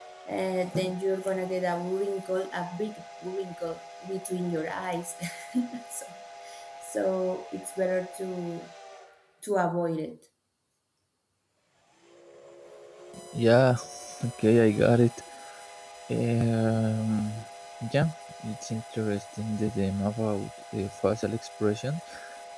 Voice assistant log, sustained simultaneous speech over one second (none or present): none